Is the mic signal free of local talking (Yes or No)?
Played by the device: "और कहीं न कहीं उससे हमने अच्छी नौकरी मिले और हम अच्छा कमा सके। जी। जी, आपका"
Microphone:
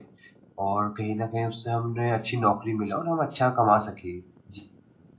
Yes